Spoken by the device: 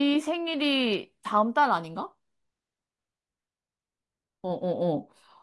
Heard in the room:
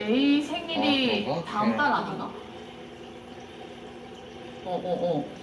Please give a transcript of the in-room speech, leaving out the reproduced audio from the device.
아 그런가? 걔랑도

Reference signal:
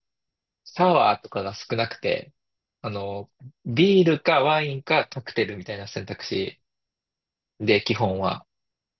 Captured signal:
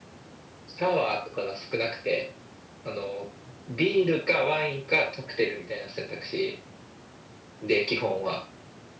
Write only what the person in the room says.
none

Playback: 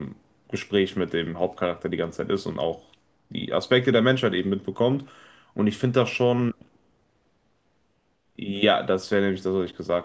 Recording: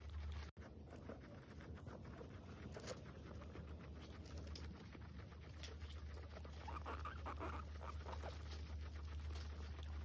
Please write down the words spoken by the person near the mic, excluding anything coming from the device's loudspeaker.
none

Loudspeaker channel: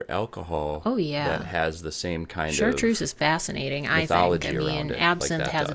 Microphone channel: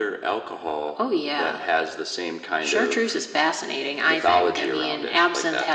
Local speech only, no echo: none

